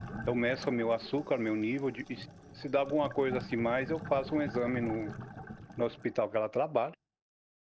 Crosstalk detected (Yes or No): No